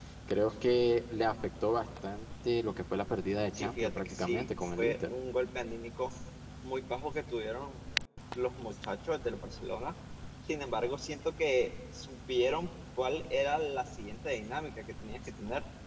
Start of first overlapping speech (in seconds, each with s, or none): 3.5 s